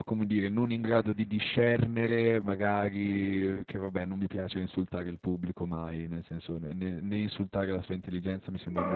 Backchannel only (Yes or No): No